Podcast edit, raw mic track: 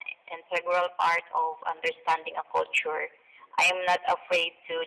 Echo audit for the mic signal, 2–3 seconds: echo only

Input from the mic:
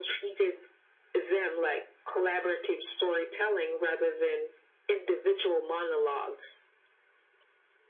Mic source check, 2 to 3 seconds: echo only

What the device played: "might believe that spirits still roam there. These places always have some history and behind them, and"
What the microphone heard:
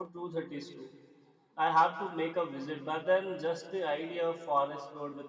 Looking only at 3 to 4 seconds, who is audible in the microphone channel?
user only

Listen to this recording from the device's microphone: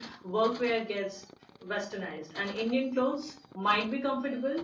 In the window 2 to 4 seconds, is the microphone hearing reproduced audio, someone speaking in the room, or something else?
echo only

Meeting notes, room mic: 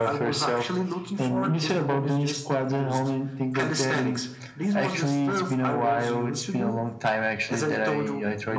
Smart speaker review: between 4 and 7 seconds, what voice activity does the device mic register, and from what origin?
echo only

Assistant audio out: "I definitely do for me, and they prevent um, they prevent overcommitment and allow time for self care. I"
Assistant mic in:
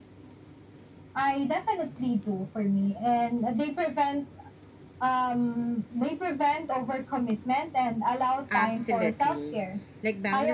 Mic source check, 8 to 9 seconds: both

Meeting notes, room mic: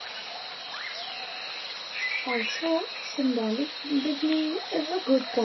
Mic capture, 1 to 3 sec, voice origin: user only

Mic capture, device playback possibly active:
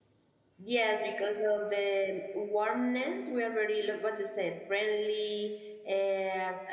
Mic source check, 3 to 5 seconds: user only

